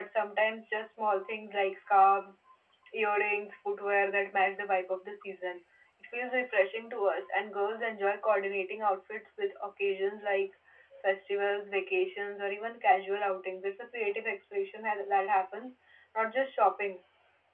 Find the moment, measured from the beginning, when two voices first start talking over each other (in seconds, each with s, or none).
none